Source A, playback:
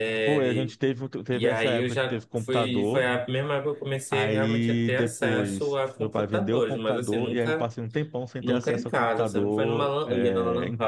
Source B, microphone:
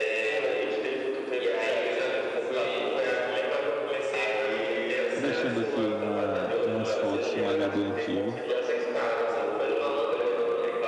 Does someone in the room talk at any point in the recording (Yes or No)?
Yes